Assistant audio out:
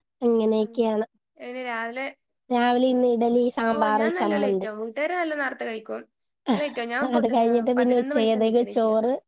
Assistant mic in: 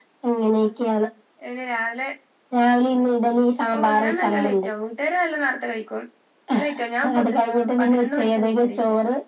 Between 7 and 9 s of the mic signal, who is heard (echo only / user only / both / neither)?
echo only